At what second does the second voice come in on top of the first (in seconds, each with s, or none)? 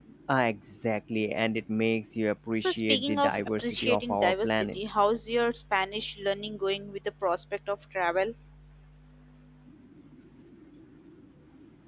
2.6 s